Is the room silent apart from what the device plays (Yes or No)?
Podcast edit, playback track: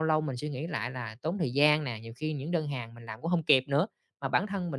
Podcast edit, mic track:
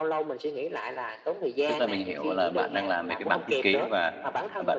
No